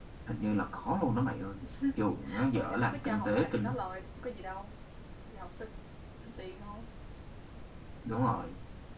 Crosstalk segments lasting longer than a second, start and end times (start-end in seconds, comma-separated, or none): 2.5-3.8